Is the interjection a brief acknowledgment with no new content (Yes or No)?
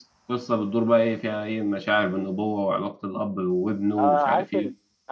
No